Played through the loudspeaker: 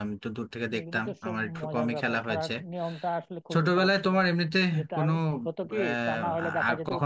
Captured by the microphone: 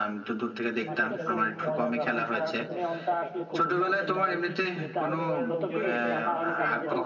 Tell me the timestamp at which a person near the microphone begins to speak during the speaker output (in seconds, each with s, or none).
0.9 s